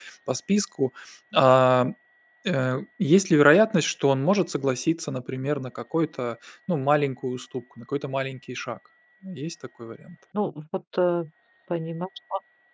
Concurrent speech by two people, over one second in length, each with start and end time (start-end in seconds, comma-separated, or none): none